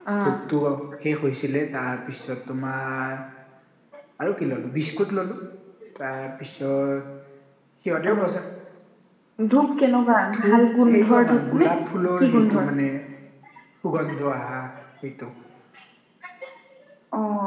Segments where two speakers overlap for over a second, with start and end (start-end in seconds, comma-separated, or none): 10.3-11.7